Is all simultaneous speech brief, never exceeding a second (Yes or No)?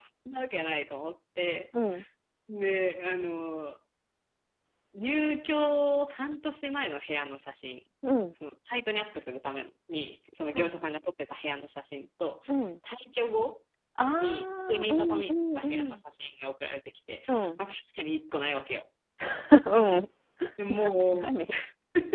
No